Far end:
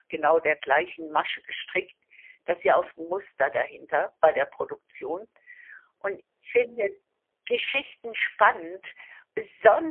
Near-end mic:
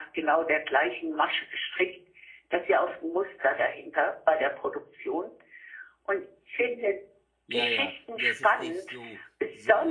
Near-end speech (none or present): present